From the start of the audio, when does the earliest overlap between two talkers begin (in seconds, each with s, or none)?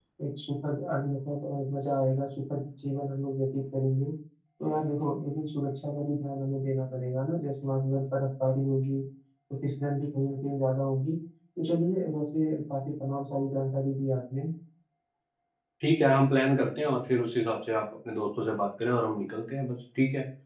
none